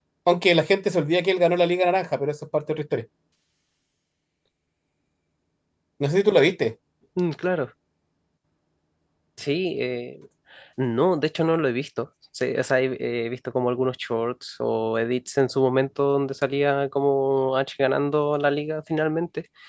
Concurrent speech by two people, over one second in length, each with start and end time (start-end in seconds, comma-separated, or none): none